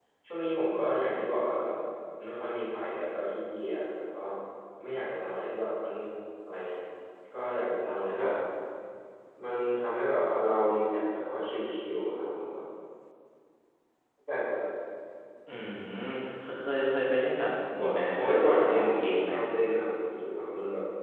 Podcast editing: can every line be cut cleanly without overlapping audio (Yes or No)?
No